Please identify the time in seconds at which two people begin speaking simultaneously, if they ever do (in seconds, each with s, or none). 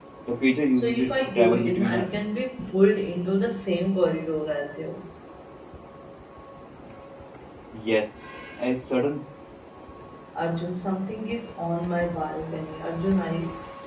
0.8 s